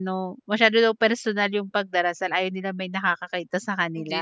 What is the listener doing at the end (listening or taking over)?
taking over